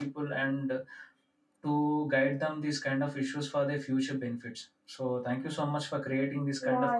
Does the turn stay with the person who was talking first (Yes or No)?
No